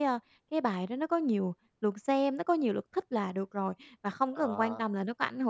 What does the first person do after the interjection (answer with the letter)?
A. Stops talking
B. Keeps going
B